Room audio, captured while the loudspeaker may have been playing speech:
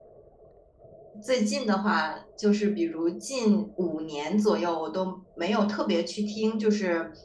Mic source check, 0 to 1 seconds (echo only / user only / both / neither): neither